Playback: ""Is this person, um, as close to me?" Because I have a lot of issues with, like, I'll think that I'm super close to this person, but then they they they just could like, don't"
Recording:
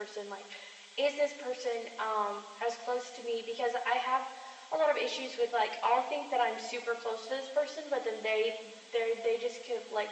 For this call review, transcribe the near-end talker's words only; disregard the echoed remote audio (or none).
none